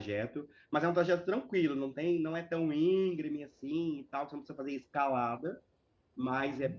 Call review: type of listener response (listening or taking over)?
listening